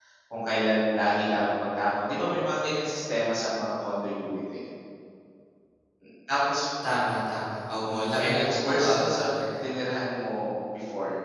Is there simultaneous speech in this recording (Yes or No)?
Yes